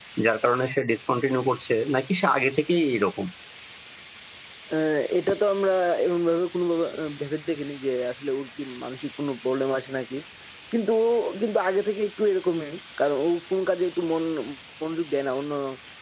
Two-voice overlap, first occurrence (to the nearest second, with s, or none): none